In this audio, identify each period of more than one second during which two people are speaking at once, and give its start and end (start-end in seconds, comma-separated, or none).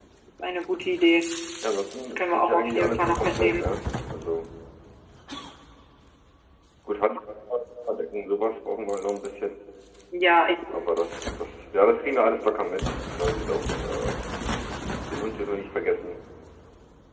2.1-3.7